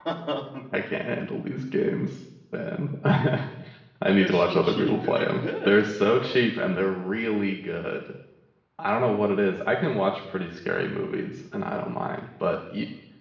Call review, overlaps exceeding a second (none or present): present